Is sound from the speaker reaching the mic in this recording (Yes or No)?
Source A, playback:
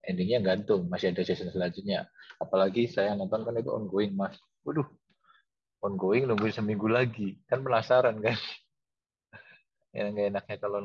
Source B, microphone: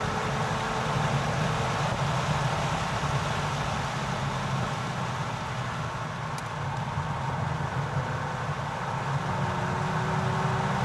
No